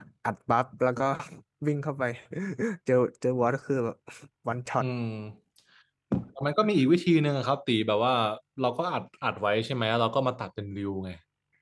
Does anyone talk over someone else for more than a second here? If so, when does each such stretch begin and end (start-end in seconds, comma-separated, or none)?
none